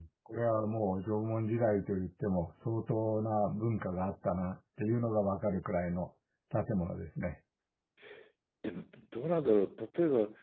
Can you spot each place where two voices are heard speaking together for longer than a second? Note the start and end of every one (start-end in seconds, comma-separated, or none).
none